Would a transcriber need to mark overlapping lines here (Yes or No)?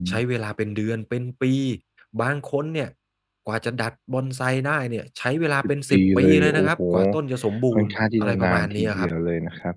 Yes